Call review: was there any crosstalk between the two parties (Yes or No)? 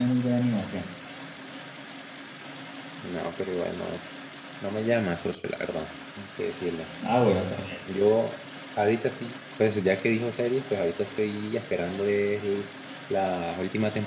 No